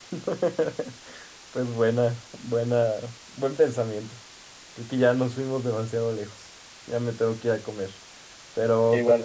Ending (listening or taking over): listening